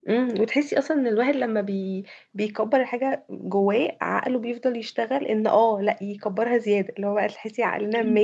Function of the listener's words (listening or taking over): listening